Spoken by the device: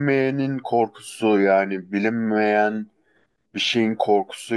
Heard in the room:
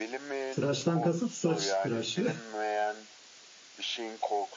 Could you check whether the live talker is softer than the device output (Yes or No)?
No